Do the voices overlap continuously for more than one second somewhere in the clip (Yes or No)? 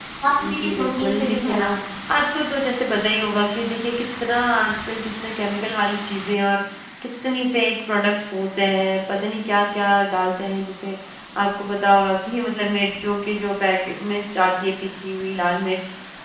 Yes